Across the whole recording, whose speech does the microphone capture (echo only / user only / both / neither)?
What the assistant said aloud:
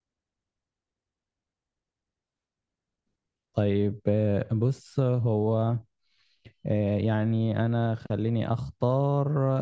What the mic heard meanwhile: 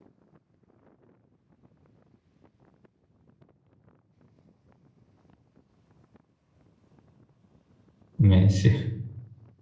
user only